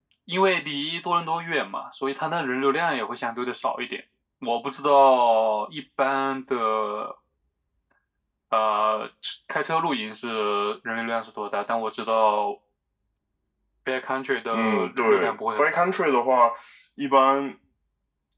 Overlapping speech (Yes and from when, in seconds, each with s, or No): Yes, from 14.5 s